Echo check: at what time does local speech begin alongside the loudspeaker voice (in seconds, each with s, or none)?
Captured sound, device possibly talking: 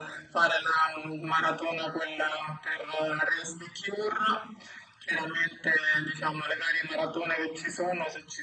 none